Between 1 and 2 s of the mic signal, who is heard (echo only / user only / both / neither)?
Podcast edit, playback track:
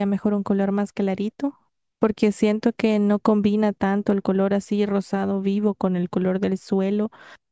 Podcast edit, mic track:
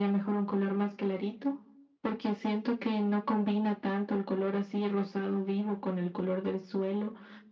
echo only